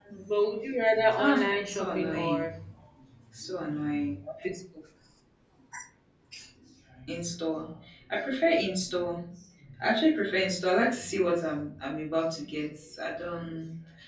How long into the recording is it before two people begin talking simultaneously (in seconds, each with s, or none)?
1.2 s